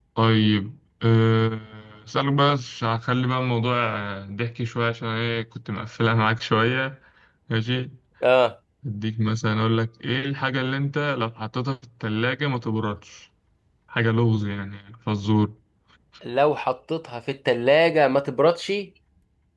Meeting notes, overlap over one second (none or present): none